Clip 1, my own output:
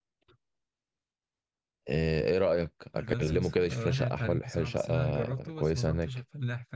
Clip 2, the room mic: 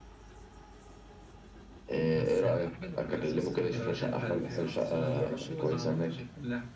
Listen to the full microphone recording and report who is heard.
both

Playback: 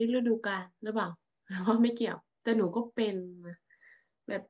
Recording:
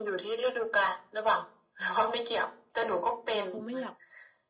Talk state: both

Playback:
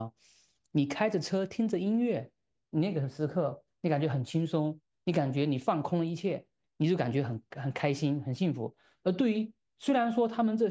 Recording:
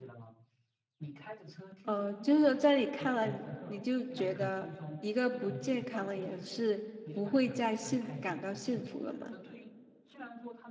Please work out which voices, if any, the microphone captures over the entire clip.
both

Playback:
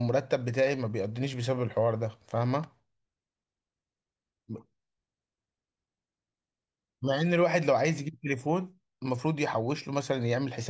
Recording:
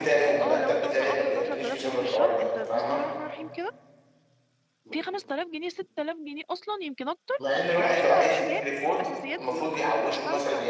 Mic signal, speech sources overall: both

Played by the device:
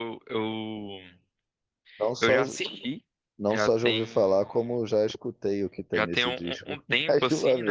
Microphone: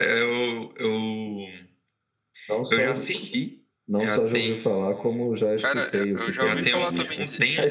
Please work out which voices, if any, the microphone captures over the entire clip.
both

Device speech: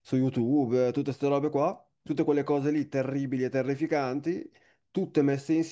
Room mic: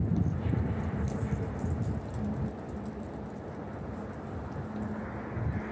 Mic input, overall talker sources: neither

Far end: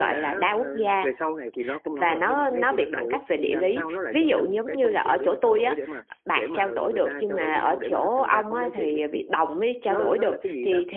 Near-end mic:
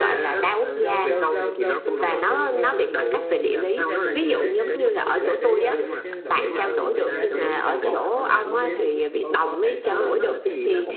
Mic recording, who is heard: both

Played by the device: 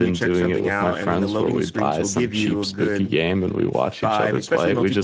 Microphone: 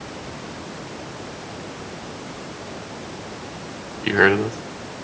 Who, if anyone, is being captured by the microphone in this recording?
user only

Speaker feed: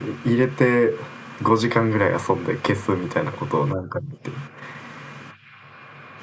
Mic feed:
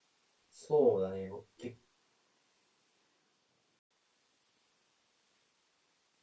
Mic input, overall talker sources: user only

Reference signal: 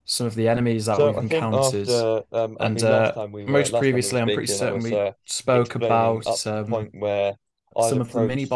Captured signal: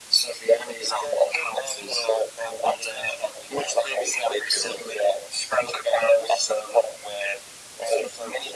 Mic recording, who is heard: echo only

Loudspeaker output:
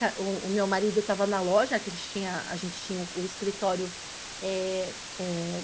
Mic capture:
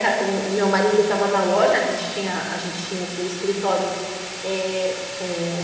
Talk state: echo only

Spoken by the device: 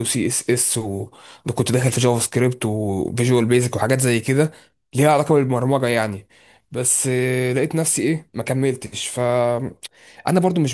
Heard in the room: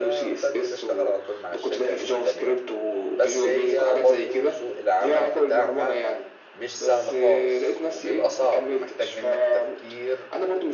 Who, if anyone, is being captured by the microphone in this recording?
both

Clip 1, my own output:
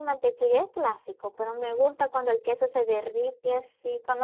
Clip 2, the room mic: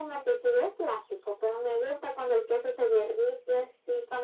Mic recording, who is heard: echo only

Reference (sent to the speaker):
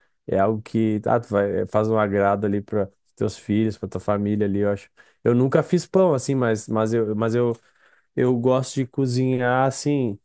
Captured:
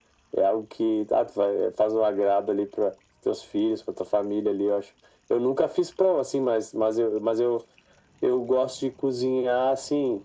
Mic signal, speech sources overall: echo only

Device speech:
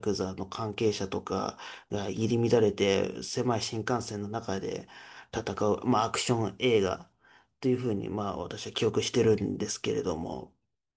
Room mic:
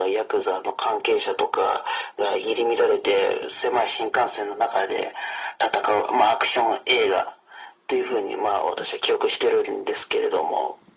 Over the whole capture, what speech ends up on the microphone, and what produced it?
echo only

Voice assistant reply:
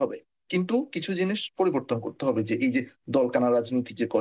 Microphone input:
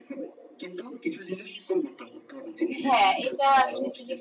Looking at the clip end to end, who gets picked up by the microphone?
both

